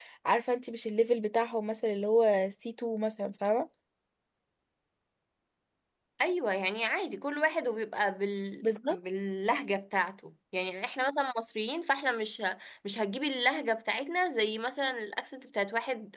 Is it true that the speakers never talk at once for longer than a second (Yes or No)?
Yes